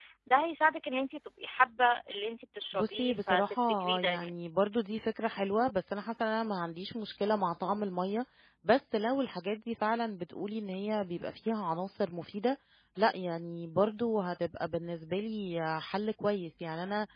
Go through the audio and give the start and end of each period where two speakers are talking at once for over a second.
2.7-4.3

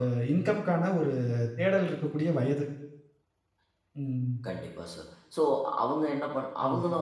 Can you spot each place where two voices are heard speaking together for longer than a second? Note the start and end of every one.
none

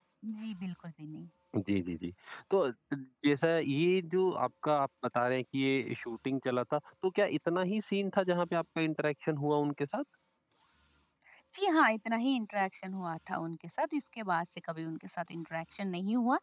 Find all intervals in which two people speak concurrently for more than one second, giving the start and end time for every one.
none

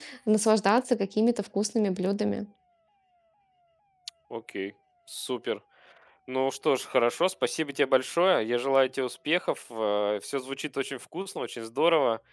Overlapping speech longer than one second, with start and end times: none

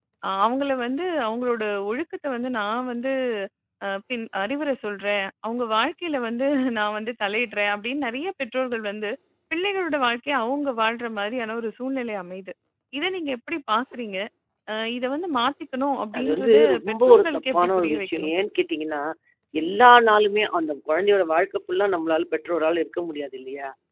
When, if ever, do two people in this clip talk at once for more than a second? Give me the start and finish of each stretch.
16.2-18.3

